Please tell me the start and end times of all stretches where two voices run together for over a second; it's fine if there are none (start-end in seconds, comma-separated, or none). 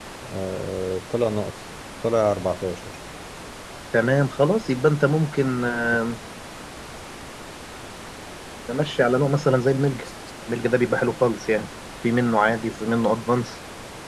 none